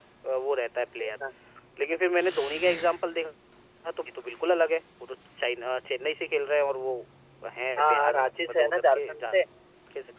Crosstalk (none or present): present